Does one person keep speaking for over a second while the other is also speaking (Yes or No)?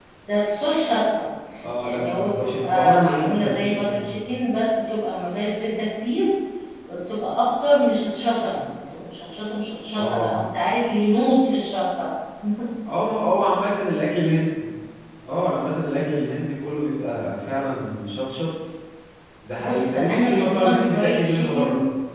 Yes